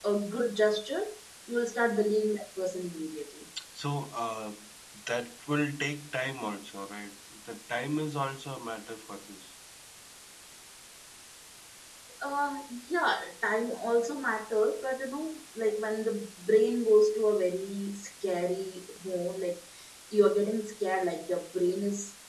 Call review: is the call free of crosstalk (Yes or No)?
Yes